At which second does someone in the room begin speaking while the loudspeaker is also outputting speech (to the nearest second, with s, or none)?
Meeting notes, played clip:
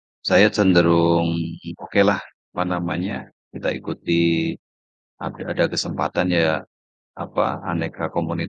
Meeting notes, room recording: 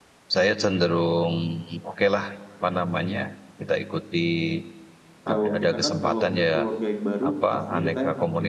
5 s